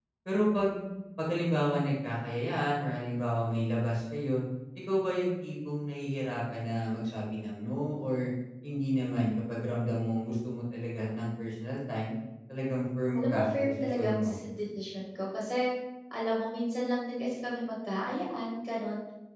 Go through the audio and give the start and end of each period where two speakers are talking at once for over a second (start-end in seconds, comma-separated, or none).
13.2-14.4